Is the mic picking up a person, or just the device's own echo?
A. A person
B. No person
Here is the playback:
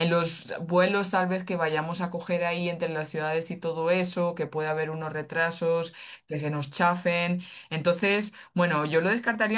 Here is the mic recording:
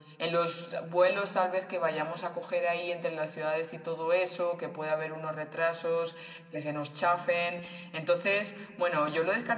B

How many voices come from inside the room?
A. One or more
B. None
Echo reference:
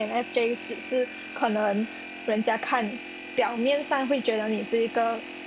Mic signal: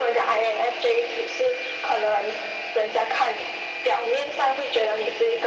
B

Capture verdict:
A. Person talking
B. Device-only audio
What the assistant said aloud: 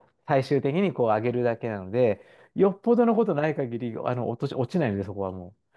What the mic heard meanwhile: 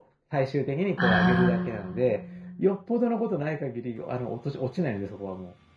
A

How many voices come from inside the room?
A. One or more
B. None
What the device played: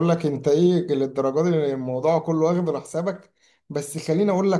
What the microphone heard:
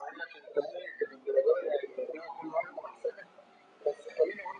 B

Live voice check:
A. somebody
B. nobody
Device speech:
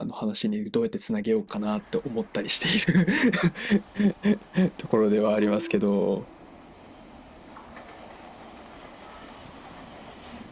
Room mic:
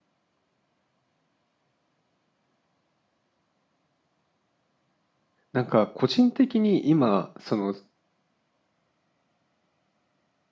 A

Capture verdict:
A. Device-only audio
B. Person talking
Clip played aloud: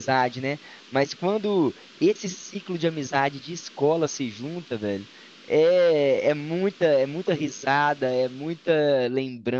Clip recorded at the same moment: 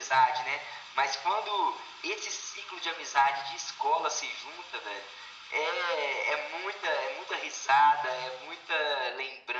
A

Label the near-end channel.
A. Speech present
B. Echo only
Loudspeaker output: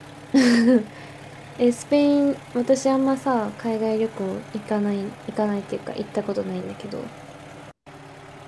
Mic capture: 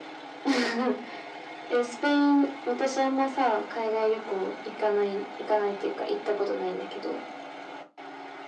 B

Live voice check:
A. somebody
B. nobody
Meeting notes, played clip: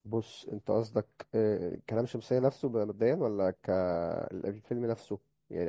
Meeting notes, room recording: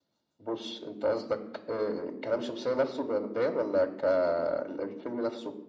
B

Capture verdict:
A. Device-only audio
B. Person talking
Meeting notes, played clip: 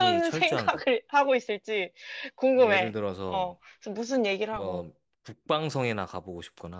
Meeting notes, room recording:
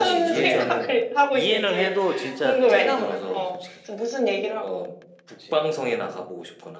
B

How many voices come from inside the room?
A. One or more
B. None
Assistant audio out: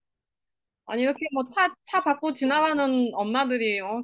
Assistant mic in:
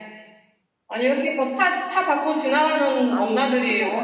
A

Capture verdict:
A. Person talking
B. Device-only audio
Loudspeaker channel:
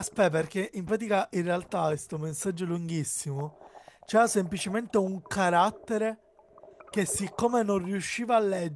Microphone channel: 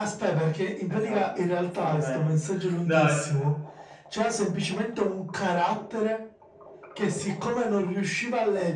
A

